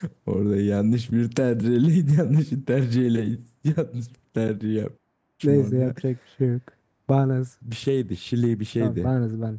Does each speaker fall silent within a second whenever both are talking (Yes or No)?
Yes